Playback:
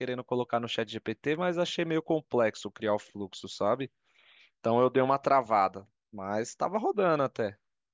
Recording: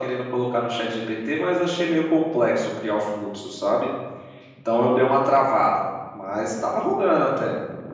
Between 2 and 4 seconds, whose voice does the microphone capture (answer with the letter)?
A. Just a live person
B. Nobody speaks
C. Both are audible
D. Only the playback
D